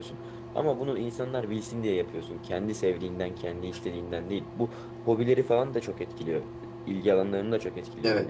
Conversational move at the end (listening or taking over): taking over